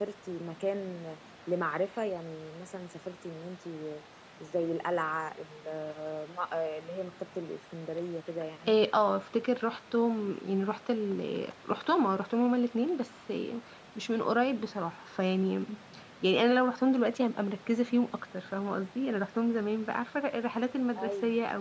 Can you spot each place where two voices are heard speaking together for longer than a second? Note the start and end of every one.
none

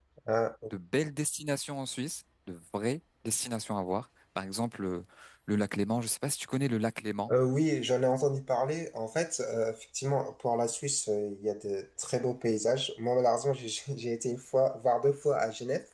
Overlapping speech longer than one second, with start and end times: none

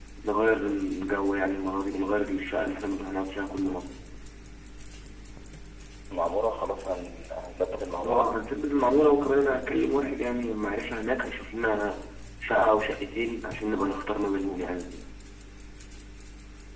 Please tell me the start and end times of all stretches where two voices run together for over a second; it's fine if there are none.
none

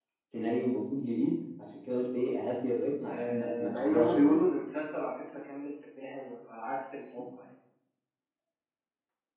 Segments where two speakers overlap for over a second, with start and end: 3.1-4.5

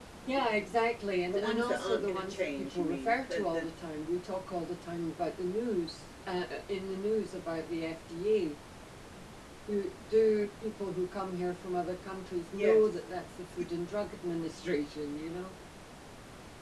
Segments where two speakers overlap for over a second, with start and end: 1.3-3.7

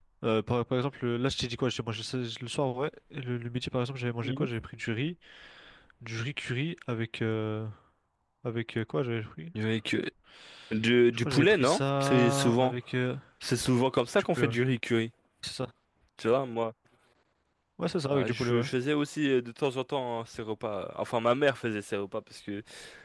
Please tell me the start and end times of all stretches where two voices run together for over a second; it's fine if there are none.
11.2-12.7

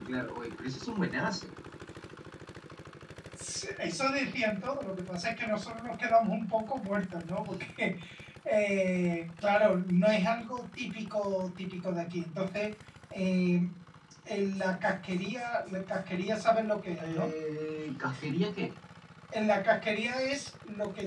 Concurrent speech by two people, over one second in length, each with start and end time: none

